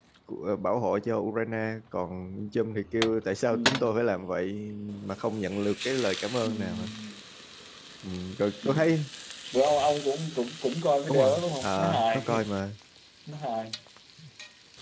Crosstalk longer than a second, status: present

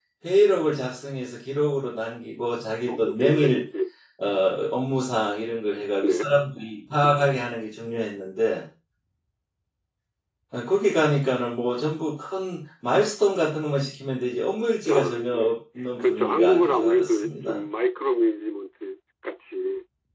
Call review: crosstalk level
present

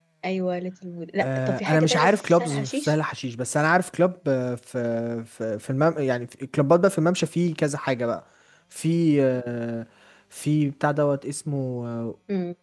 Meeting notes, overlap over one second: present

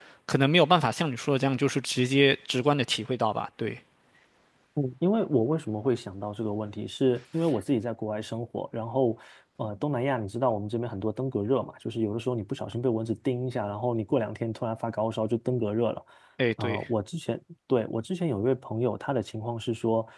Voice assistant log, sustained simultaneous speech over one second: none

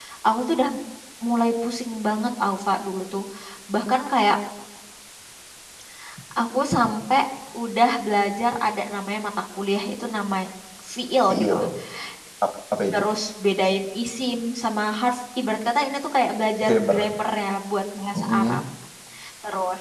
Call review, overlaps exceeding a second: none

